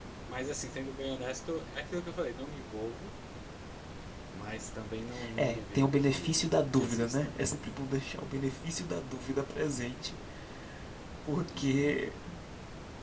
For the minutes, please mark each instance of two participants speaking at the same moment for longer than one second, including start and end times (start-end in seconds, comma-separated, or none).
5.4-7.3